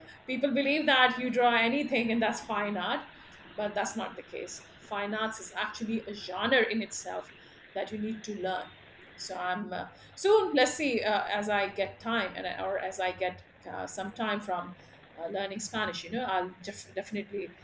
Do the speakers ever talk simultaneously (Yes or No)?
No